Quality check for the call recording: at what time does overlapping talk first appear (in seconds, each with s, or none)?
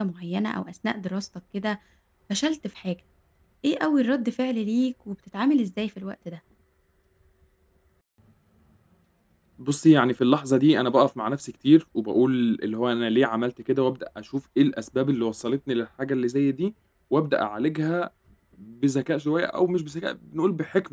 none